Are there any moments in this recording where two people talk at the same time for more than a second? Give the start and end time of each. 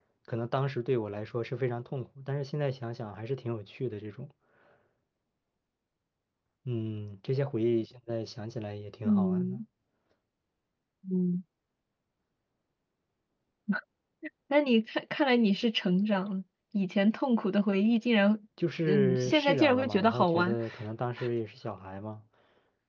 18.9-20.6

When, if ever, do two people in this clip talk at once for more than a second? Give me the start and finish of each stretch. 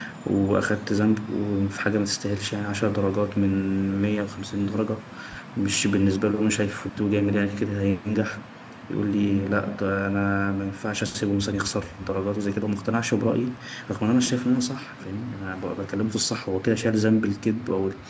none

